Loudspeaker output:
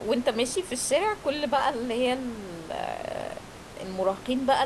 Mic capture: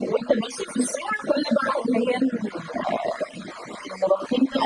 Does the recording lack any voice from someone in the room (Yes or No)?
Yes